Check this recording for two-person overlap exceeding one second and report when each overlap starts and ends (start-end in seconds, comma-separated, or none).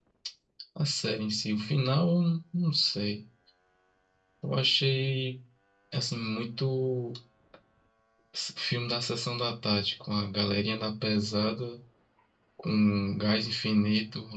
none